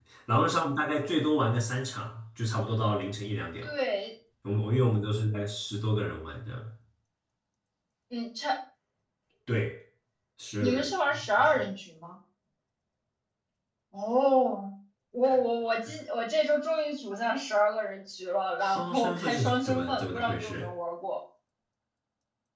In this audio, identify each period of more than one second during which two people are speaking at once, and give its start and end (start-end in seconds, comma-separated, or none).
18.6-20.7